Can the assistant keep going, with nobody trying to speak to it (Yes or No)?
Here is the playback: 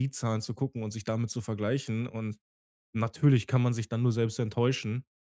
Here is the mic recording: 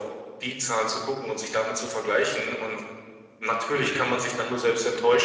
Yes